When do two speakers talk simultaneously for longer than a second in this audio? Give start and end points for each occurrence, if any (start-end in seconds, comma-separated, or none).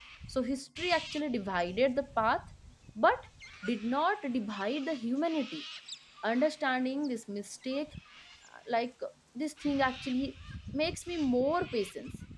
none